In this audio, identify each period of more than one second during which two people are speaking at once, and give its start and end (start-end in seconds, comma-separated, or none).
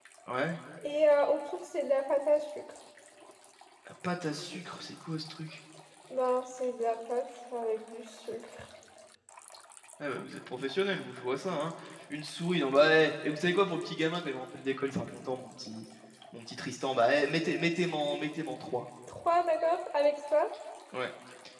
none